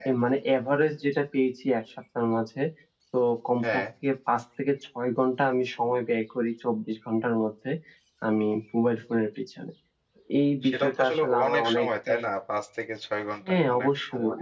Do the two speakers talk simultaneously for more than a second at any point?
Yes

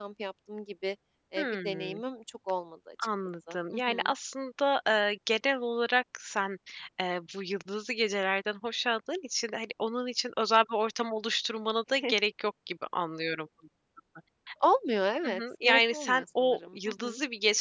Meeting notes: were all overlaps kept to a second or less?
No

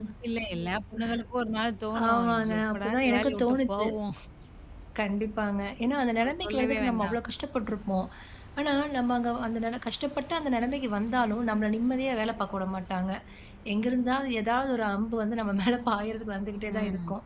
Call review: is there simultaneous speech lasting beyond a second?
Yes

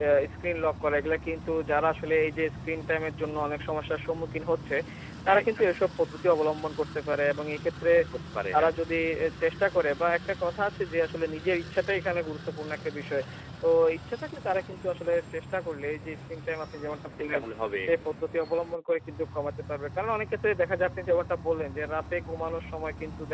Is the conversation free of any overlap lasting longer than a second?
Yes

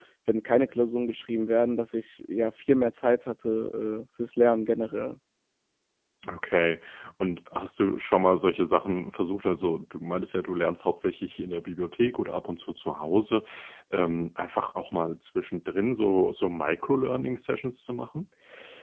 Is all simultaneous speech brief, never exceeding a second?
Yes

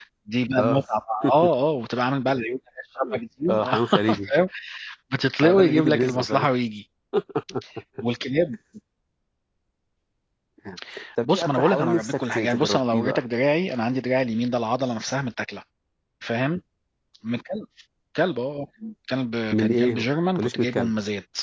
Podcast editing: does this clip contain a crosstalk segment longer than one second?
Yes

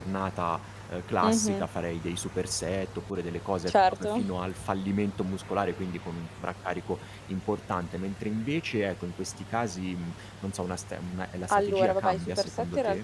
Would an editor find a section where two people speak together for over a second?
Yes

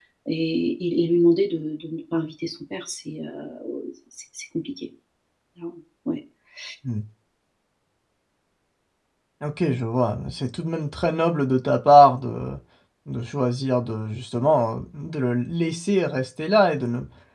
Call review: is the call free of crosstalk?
Yes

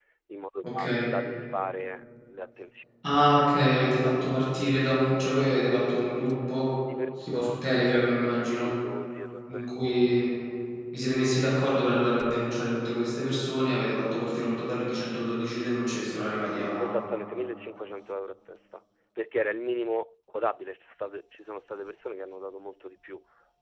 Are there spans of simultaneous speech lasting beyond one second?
No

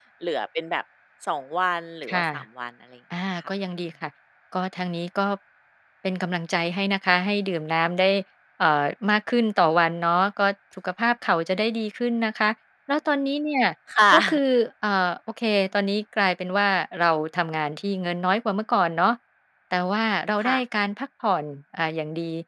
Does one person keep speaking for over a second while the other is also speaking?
No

